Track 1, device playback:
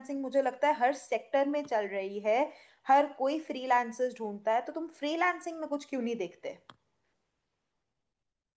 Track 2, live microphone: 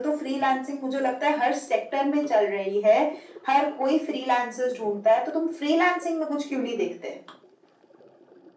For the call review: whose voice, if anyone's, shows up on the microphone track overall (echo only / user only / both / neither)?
echo only